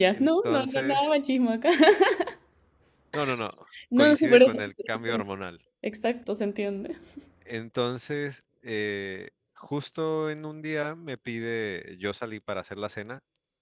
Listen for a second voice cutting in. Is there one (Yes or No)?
Yes